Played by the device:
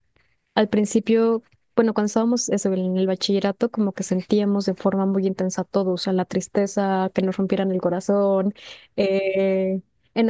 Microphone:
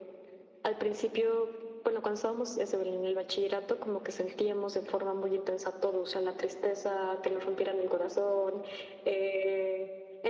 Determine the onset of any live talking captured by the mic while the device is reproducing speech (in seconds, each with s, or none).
none